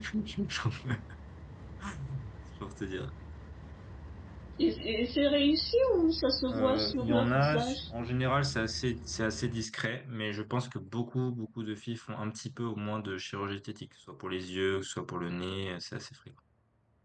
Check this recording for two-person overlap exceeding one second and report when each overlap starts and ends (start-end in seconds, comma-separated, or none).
6.5-7.9